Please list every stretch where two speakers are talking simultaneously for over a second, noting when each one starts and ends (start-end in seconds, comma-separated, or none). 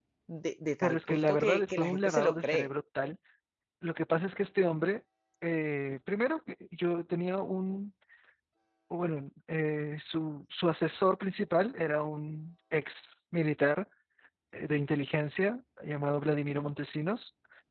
0.8-2.7